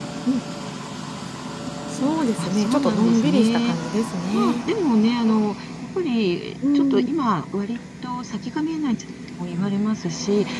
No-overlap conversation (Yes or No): No